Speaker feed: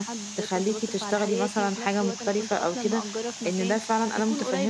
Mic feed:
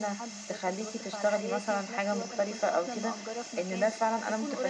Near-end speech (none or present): none